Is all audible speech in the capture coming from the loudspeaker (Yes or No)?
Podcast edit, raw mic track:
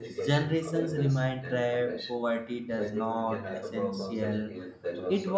No